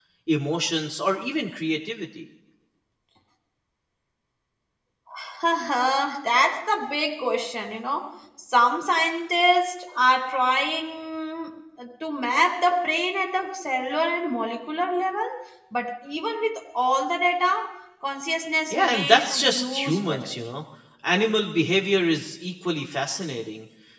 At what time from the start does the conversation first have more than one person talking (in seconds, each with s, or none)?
18.7 s